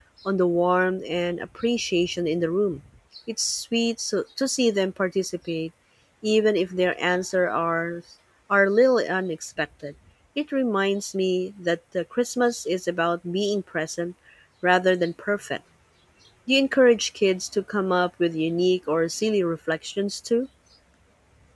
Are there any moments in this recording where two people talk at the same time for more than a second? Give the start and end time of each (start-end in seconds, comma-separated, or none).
none